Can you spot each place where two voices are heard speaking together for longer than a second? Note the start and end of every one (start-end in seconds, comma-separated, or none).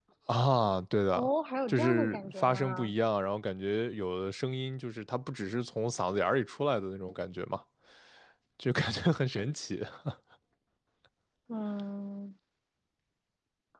1.7-2.9